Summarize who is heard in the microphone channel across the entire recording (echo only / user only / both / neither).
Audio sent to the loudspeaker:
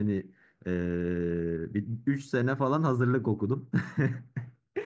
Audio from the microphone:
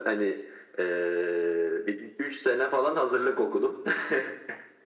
echo only